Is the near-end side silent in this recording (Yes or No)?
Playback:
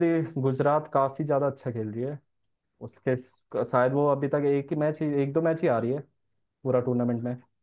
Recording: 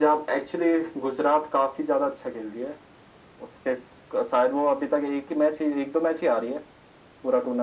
Yes